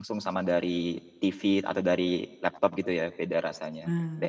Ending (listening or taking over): taking over